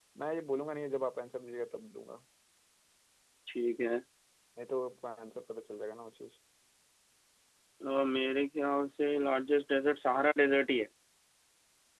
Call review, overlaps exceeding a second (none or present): none